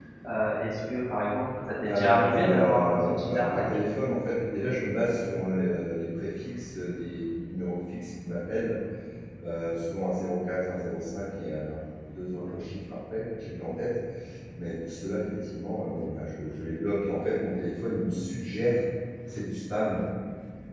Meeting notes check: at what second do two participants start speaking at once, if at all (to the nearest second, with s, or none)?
2 s